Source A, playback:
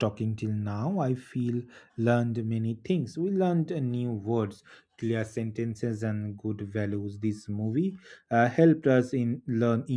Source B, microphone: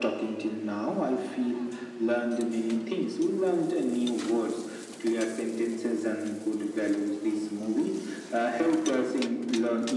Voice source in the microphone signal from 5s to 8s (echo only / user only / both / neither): echo only